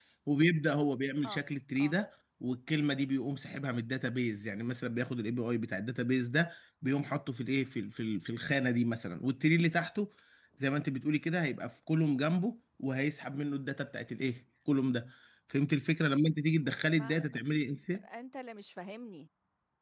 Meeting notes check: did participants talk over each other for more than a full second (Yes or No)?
No